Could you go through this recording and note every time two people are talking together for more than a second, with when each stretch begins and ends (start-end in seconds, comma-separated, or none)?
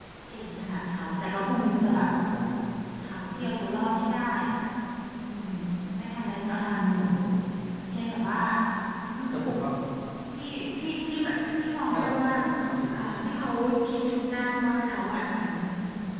none